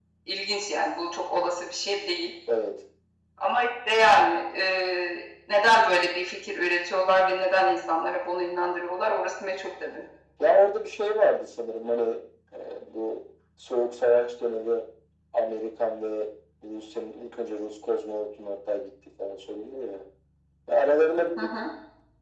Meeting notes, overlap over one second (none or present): none